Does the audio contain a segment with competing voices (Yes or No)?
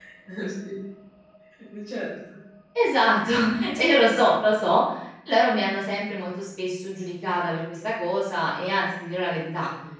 No